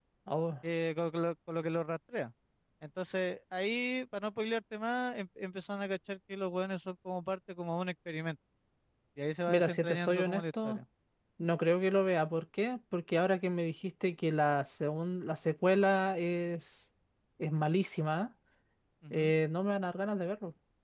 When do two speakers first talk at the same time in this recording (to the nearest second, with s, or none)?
9 s